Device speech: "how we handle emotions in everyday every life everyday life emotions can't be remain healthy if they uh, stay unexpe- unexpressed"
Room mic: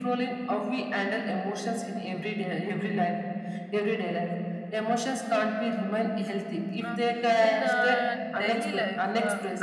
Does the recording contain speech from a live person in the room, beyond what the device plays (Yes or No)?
Yes